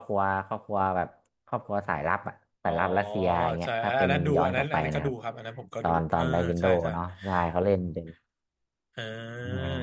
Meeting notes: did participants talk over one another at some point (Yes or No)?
Yes